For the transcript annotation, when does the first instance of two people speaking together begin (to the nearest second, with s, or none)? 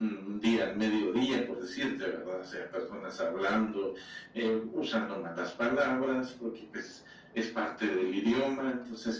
none